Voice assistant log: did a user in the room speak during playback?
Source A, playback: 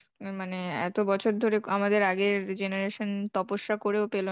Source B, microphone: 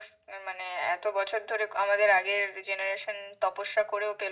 No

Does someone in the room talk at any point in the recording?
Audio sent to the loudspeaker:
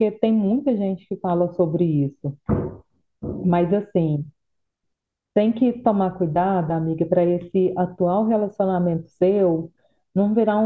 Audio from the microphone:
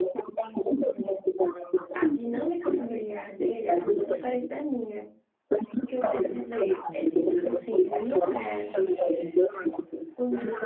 Yes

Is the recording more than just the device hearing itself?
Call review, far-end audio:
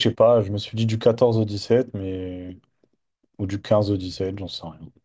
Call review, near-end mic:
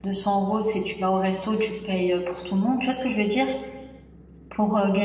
Yes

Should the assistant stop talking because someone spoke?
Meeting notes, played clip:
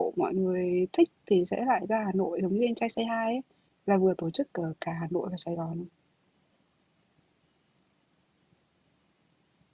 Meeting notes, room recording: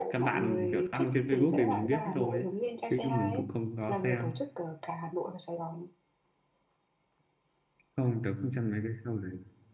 Yes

